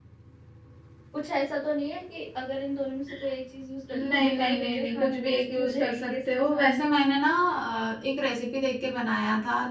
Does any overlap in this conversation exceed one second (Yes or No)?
Yes